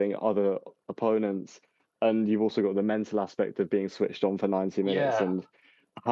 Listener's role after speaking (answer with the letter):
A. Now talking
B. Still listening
B